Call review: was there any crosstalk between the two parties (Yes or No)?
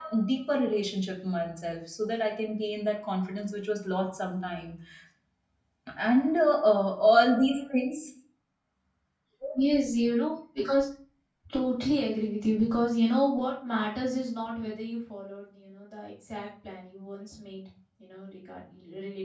No